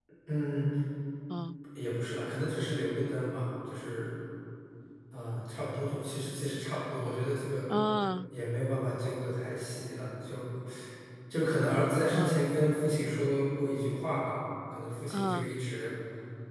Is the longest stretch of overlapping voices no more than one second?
Yes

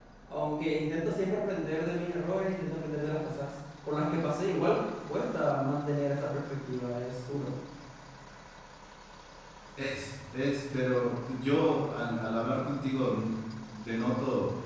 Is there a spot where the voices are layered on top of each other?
No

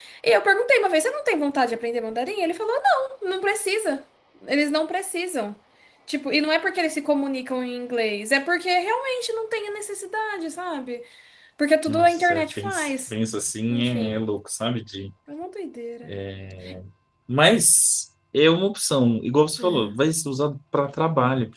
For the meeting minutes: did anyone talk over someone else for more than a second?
Yes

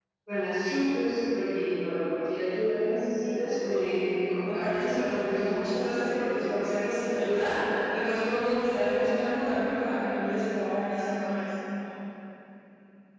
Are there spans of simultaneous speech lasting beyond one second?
Yes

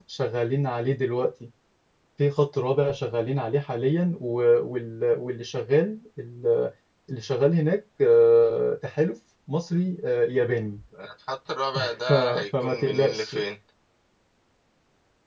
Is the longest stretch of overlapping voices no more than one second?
No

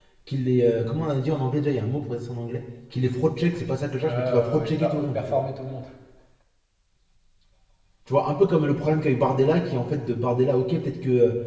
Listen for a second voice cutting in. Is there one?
Yes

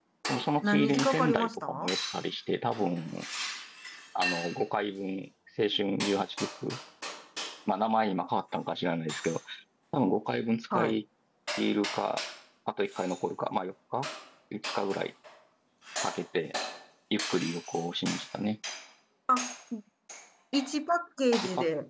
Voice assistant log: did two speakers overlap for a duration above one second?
Yes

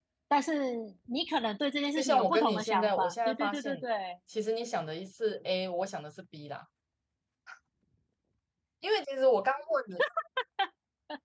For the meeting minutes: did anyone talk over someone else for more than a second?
Yes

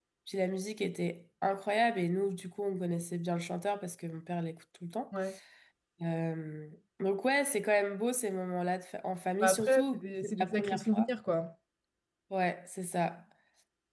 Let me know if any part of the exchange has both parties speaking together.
Yes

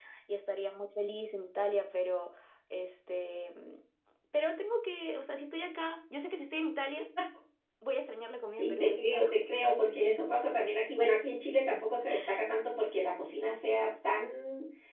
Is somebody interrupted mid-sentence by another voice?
Yes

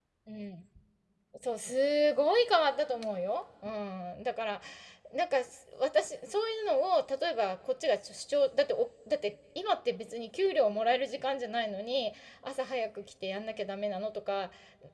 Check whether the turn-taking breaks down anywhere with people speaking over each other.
No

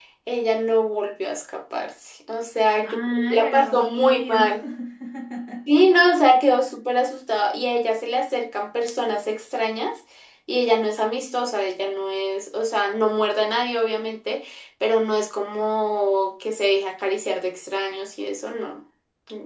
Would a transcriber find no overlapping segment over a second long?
No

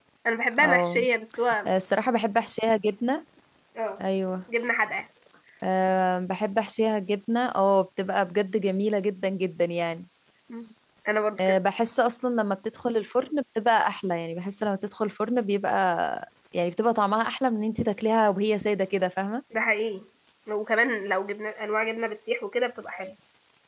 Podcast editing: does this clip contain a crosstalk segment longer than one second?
No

